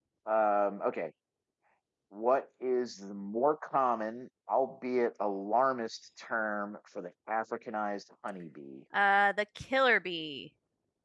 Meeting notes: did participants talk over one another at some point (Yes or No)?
No